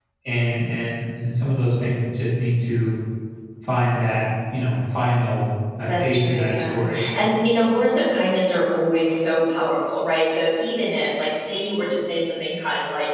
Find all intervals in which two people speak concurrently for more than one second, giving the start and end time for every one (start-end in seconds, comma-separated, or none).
5.9-7.4